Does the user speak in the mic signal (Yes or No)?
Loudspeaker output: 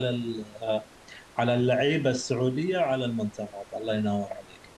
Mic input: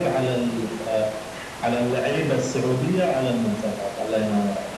No